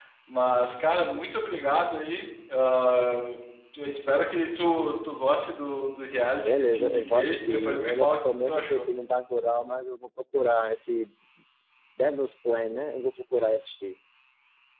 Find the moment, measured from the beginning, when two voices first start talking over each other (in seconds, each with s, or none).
6.4 s